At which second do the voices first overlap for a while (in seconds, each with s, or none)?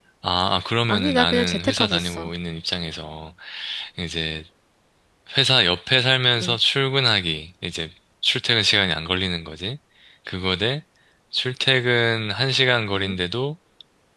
0.9 s